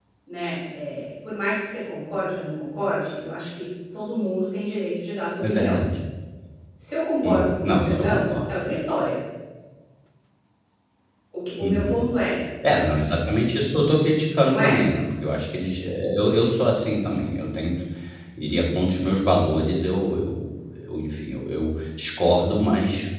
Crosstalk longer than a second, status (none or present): present